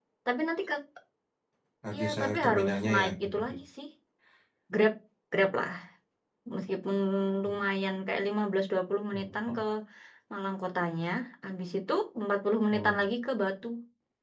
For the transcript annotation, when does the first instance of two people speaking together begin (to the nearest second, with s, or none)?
2 s